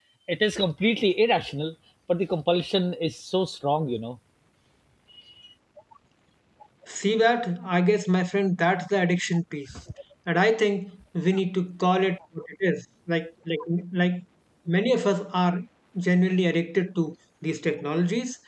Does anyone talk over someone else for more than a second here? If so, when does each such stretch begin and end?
none

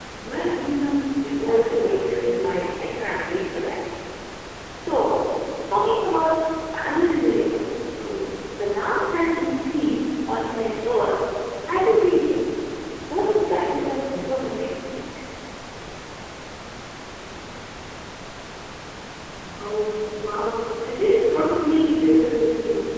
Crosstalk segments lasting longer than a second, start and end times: 1.3-2.6

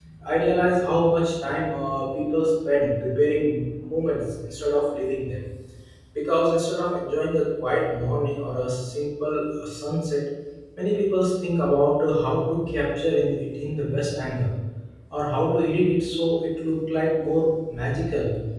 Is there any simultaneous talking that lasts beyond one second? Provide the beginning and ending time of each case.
none

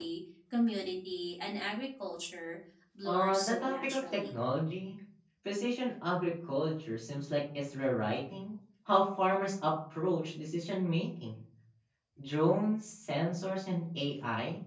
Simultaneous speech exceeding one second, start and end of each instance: 3.1-4.3

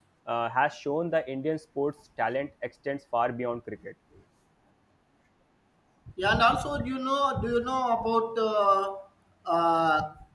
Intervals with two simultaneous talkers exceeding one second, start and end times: none

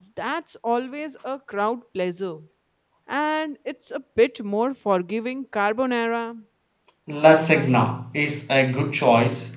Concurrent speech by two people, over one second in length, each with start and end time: none

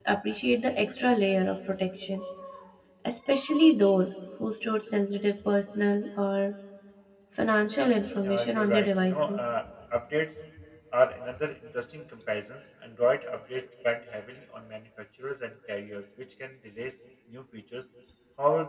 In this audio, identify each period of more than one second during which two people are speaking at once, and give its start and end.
8.2-9.5

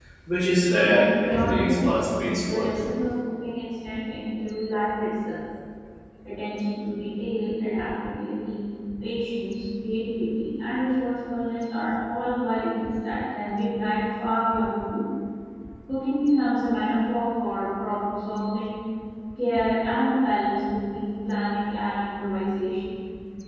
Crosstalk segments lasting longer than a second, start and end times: 0.8-2.8

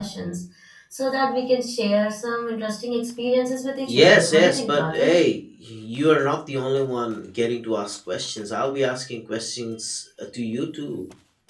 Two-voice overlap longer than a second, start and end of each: 3.9-5.2

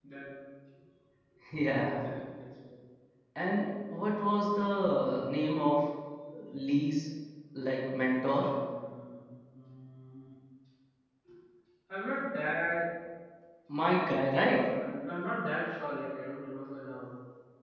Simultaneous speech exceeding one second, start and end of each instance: none

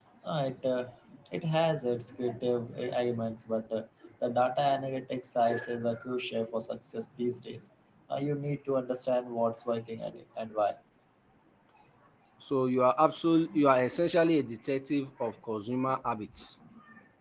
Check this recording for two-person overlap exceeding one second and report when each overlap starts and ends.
none

